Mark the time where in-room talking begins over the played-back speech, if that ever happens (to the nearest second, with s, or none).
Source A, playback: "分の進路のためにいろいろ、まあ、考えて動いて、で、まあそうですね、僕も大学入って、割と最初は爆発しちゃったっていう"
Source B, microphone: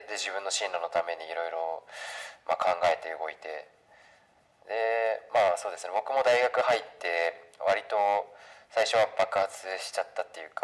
none